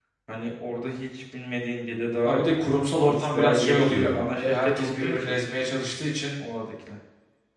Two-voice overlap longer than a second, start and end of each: 2.9-5.3

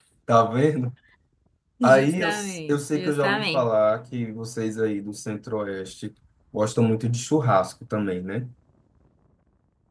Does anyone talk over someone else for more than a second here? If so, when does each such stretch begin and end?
1.8-3.7

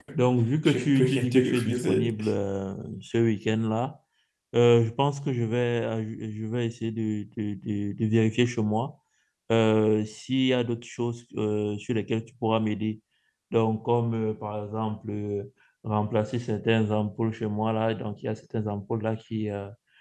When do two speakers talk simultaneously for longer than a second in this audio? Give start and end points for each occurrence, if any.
0.7-2.1

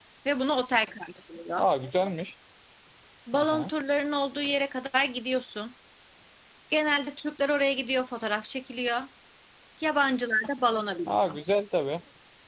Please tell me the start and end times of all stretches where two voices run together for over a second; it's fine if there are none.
none

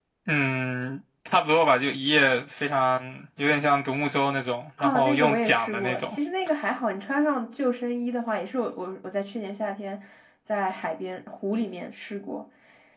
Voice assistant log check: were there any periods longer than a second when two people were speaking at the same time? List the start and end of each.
4.8-6.2

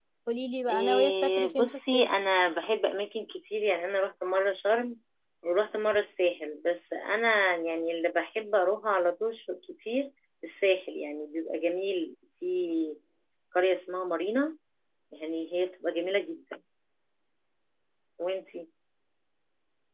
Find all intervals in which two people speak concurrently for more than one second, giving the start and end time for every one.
0.7-2.1

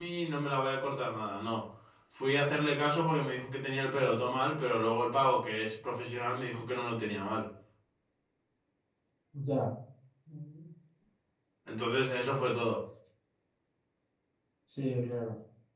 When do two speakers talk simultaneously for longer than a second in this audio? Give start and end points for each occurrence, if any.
none

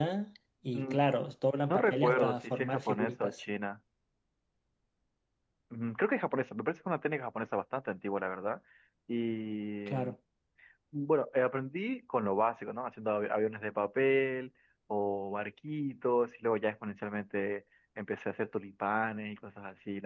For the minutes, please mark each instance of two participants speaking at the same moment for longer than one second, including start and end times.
1.7-3.4

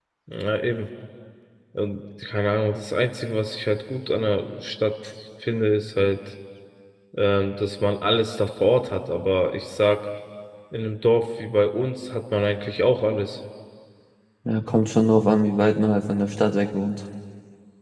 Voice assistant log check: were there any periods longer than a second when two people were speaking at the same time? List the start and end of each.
none

